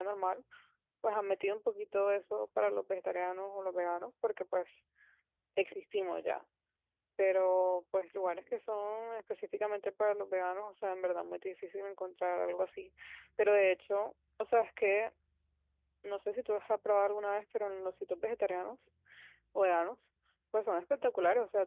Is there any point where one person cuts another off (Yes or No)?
No